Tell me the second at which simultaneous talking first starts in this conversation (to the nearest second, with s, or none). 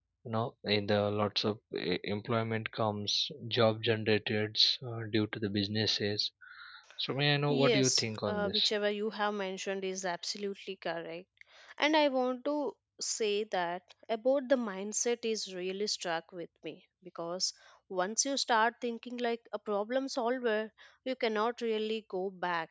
7 s